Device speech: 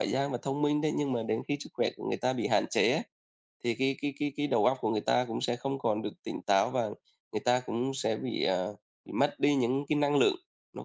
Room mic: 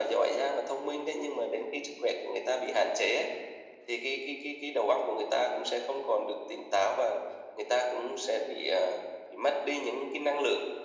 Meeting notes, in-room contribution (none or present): none